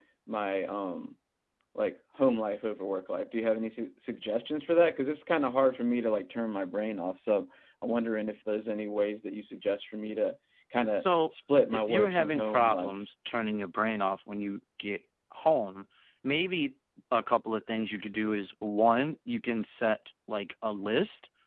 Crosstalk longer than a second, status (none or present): present